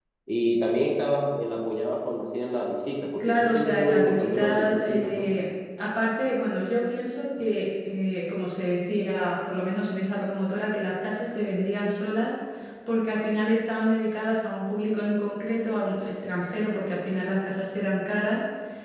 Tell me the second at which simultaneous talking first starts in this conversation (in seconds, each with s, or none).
3.2 s